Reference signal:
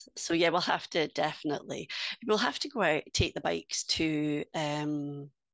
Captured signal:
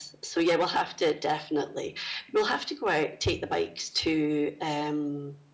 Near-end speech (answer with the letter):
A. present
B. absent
B